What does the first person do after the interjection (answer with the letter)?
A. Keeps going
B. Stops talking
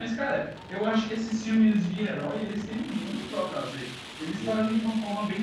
A